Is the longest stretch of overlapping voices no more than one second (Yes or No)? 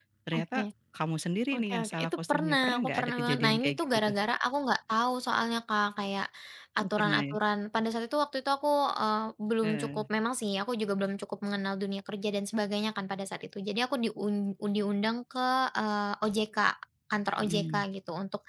No